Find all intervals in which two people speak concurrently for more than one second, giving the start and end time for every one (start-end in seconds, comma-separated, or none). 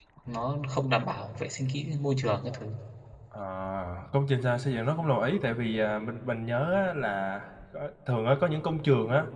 none